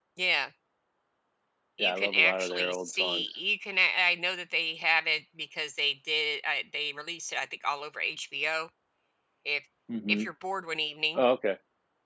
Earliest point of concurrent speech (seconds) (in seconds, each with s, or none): 1.8 s